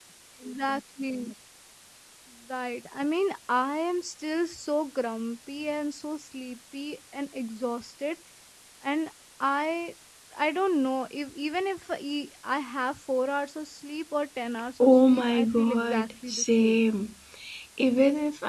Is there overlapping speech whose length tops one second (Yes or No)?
Yes